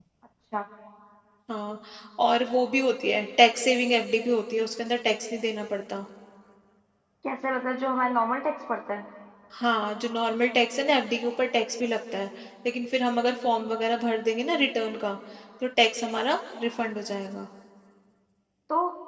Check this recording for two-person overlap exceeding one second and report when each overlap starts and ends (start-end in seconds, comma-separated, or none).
none